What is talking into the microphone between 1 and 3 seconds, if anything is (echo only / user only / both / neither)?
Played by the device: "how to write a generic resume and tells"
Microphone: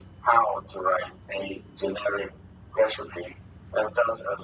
echo only